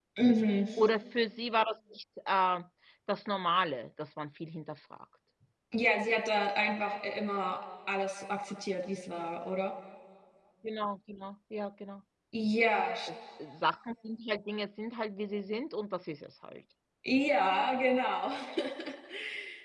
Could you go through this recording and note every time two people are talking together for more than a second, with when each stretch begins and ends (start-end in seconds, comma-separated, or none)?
none